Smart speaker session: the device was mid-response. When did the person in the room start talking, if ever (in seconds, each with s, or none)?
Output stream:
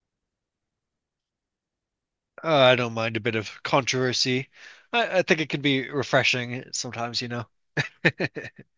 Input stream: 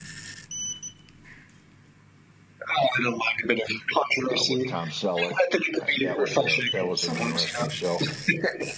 4.3 s